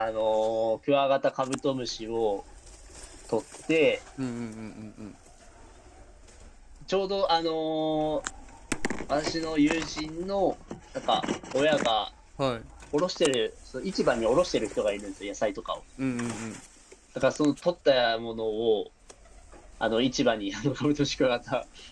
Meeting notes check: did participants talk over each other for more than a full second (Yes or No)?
No